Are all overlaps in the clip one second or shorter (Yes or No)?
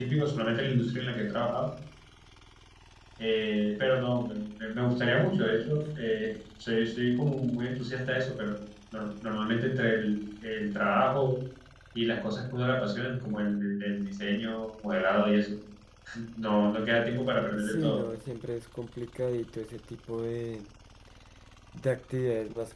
Yes